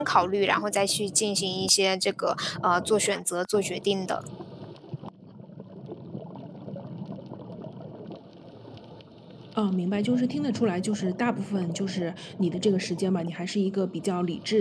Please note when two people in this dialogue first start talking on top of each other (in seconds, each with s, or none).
none